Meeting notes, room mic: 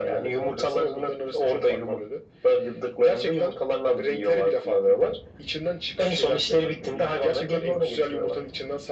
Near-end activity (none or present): none